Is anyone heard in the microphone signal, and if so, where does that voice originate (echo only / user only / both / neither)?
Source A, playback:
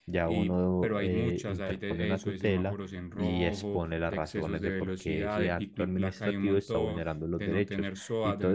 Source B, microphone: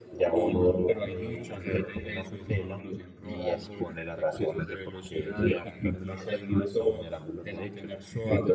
echo only